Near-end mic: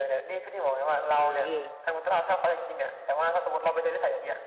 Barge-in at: 1.1 s

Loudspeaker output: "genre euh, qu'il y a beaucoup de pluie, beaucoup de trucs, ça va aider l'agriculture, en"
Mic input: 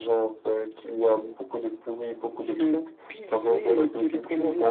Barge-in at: 2.3 s

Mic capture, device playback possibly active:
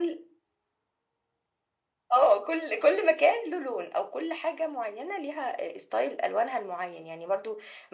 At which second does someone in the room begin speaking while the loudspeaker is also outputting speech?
none

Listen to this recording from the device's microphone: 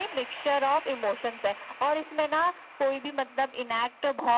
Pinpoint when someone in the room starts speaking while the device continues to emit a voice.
none

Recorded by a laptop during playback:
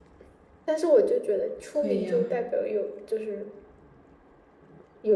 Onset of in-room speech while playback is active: 1.7 s

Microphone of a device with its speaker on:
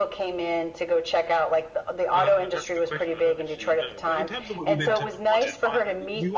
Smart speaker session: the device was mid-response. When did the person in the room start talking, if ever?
2.1 s

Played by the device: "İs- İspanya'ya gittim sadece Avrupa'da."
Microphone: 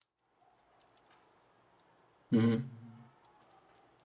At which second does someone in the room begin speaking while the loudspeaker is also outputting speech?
2.3 s

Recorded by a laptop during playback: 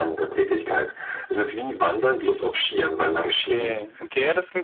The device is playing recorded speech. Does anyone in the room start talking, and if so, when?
3.2 s

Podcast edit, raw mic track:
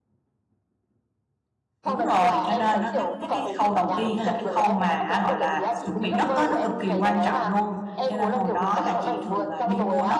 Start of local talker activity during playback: 1.8 s

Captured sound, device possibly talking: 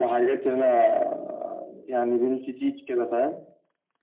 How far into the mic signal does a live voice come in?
none

